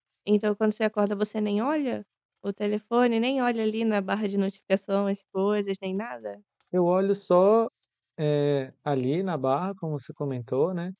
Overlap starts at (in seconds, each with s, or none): none